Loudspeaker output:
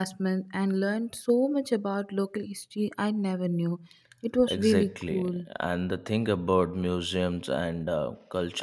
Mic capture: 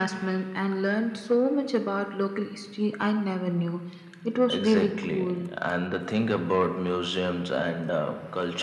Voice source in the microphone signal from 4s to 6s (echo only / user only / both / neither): echo only